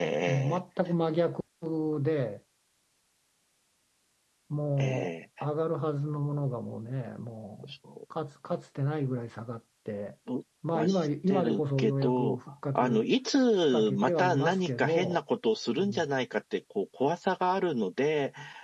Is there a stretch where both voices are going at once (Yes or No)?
Yes